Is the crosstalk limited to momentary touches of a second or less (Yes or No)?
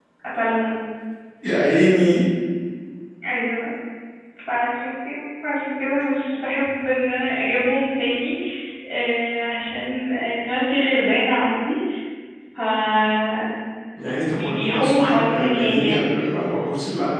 No